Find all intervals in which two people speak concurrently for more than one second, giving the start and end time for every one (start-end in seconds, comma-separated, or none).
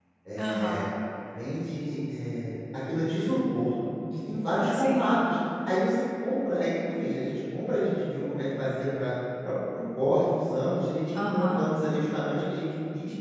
none